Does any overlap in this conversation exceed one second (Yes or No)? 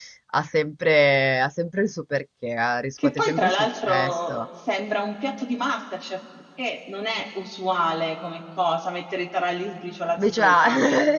Yes